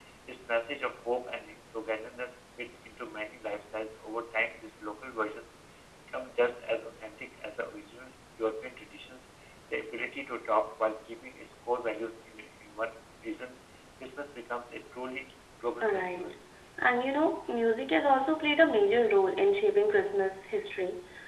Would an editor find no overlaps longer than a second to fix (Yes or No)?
Yes